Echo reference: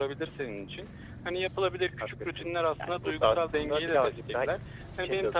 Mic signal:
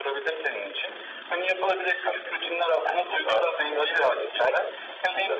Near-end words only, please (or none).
none